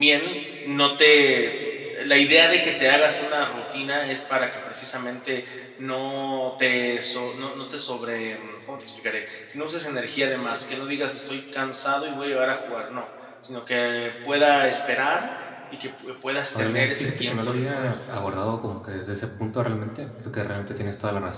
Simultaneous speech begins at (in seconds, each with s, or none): 16.5 s